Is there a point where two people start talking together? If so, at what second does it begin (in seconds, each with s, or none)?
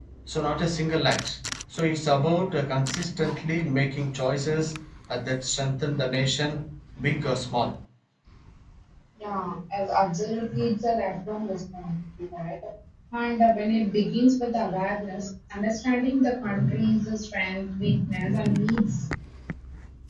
none